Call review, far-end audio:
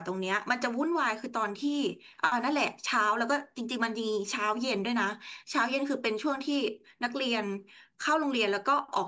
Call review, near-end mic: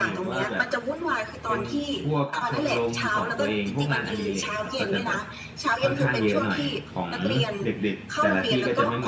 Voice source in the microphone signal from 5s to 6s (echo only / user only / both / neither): both